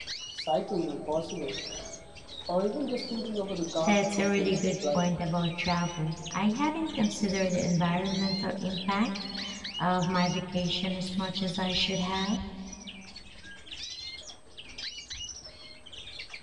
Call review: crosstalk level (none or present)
present